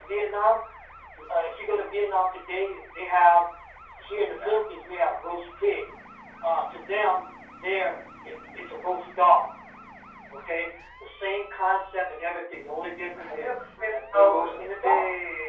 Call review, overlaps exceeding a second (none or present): present